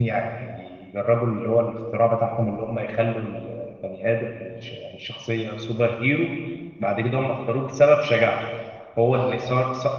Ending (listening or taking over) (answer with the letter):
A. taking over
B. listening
B